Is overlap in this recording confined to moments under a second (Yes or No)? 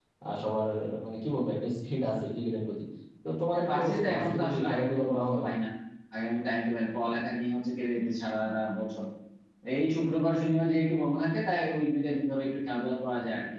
No